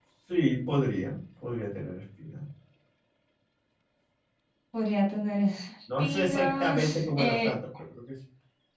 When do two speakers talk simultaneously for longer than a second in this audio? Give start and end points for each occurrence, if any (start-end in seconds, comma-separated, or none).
6.0-7.5